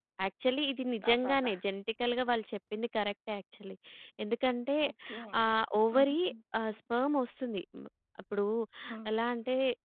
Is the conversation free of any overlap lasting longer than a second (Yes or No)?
Yes